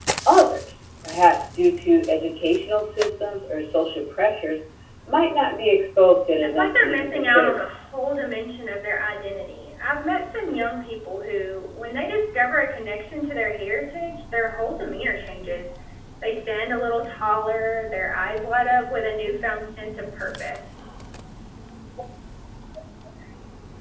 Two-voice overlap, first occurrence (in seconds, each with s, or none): 6.4 s